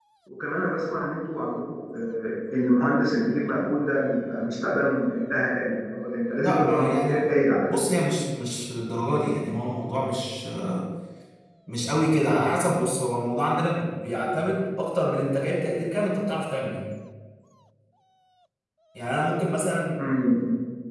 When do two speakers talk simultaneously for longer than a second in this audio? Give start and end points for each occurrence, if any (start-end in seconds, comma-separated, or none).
6.4-7.8